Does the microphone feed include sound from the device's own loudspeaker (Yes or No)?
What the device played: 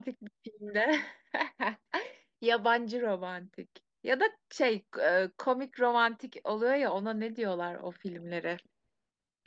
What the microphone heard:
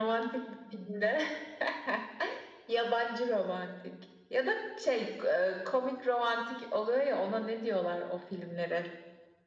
Yes